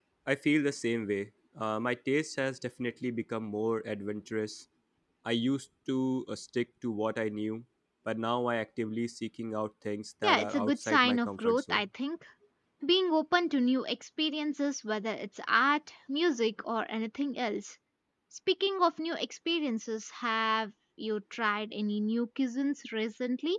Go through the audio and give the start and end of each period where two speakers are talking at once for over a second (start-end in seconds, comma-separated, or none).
10.2-11.8